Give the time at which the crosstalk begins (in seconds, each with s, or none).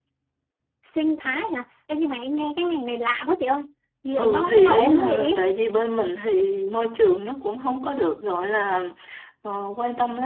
4.2 s